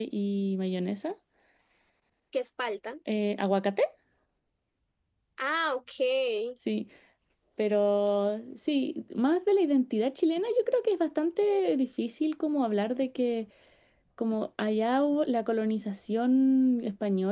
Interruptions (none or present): none